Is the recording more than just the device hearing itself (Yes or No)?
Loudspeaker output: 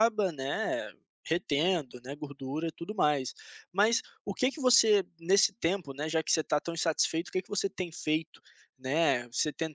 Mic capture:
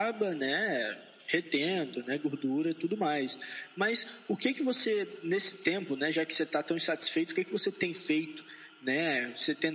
No